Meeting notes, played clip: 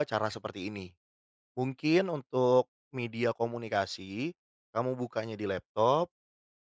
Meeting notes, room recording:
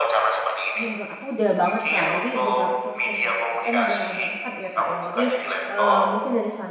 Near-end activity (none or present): present